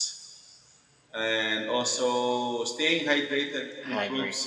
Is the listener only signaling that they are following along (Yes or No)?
Yes